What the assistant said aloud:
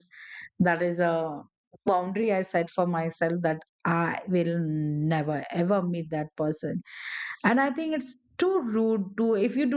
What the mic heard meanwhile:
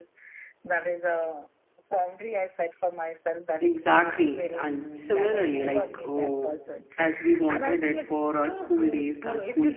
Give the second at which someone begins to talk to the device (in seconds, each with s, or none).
3.6 s